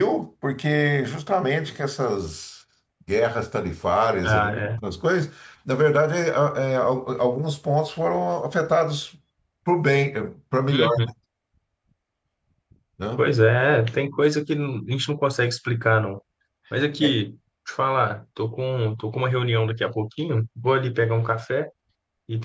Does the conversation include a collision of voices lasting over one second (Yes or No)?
No